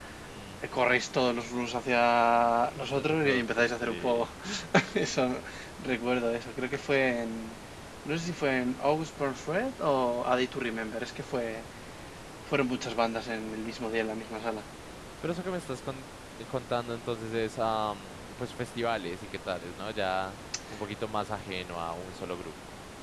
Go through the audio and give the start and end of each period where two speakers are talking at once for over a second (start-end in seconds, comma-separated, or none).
2.8-4.2